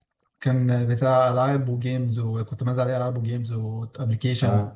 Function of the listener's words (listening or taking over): listening